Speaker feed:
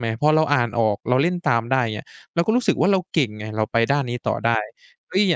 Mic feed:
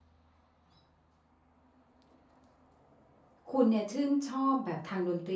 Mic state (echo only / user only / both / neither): user only